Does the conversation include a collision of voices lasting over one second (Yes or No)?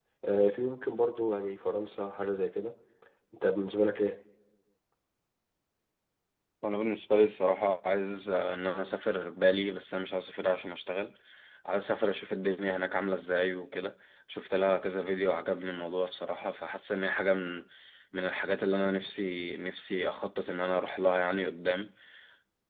No